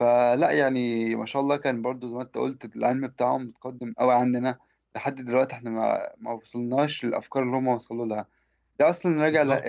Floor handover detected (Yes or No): No